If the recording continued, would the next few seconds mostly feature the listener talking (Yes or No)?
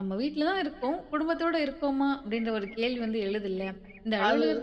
No